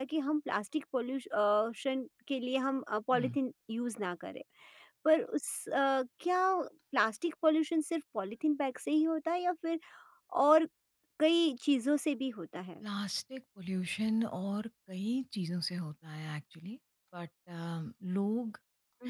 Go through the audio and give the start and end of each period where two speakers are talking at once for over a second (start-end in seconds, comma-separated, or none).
none